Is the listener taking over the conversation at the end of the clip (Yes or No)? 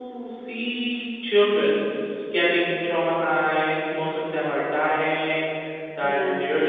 No